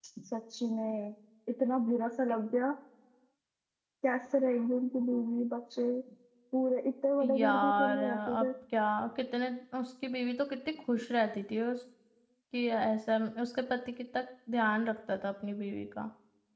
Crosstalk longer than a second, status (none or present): present